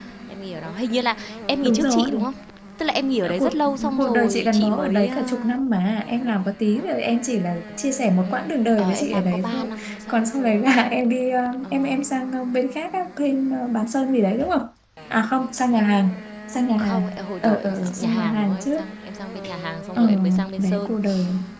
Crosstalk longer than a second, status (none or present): present